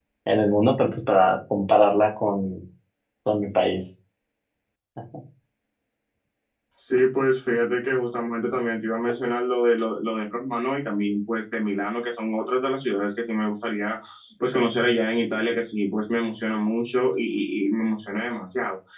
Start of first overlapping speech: none

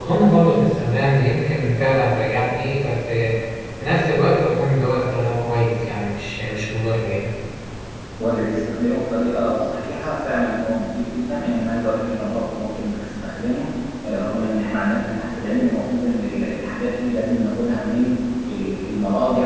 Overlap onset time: none

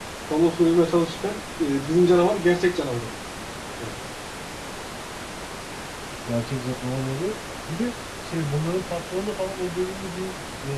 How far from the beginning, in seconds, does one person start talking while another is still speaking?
none

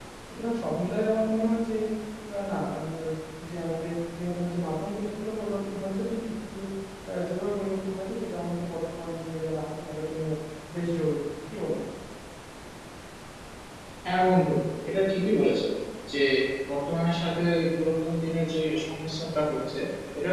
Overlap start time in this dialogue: none

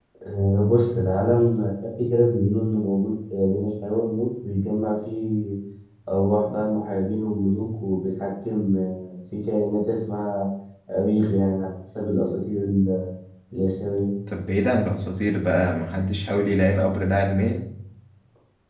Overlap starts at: none

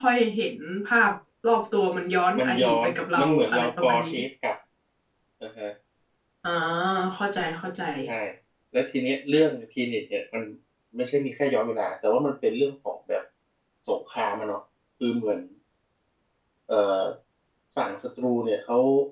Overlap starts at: 2 s

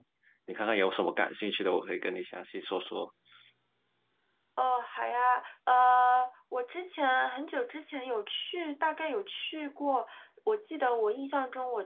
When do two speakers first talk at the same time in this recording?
none

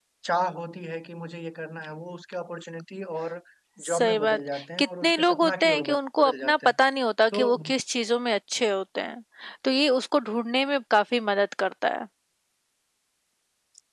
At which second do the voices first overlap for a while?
4 s

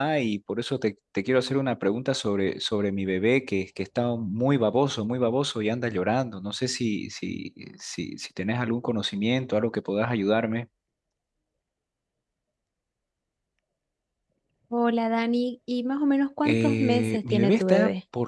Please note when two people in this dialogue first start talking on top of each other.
16 s

